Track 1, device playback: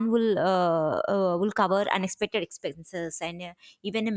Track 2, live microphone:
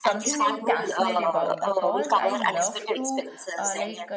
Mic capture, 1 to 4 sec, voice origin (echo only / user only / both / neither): both